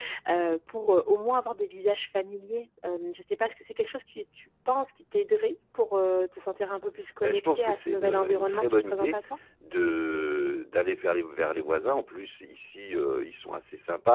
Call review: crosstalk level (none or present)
present